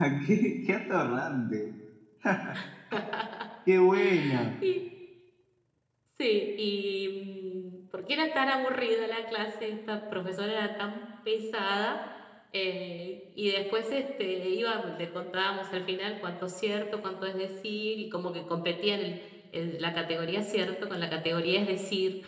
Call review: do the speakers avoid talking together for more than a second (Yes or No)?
Yes